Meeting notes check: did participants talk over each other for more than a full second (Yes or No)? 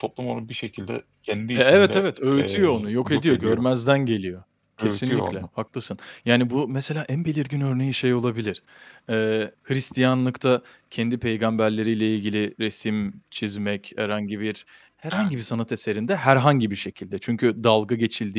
Yes